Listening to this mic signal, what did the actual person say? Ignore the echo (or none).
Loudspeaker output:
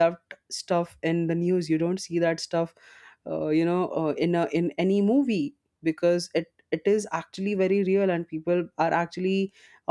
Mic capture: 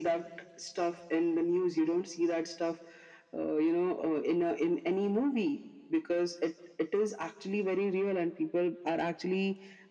none